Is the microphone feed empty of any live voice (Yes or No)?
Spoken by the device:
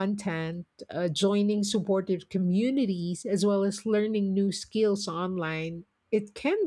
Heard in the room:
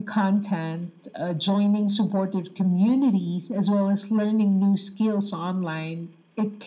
Yes